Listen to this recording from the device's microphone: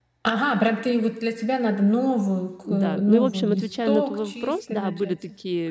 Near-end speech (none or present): present